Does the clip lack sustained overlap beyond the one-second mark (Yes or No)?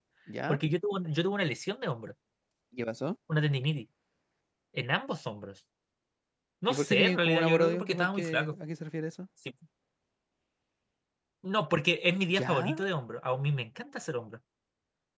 No